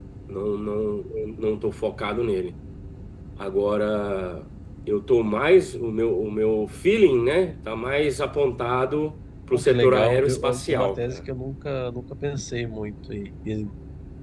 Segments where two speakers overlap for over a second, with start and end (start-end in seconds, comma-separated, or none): 9.5-11.2